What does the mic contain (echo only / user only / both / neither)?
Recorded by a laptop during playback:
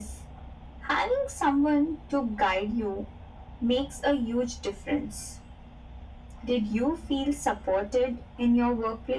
echo only